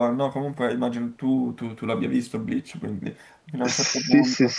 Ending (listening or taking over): taking over